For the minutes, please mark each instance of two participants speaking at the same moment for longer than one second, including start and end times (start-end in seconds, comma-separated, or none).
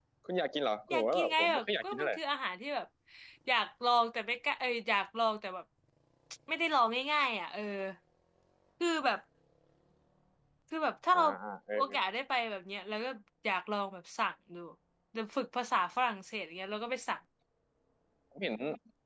0.9-2.1